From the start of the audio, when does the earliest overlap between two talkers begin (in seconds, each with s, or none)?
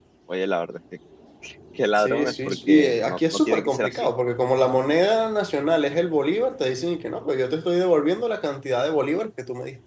2.0 s